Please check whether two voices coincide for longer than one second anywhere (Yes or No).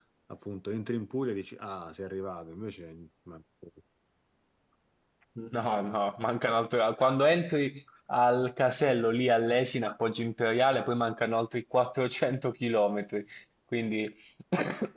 No